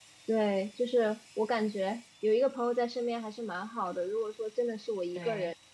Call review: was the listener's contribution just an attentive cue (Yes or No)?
Yes